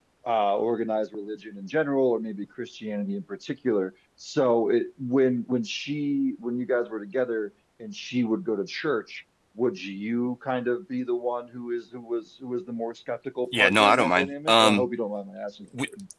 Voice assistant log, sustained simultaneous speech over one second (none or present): present